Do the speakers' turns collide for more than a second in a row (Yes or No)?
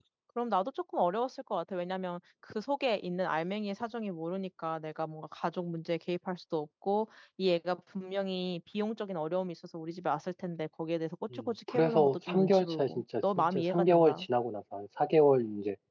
Yes